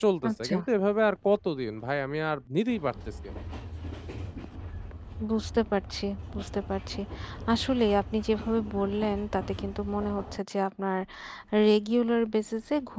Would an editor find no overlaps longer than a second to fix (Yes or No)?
Yes